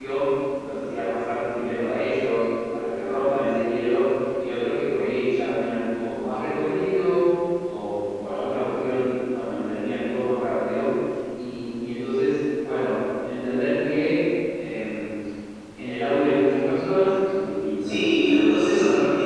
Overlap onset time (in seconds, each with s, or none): 17.8 s